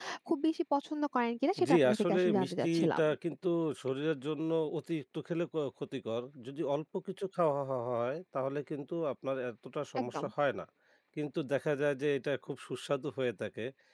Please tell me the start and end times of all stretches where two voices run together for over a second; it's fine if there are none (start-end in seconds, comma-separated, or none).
1.7-3.0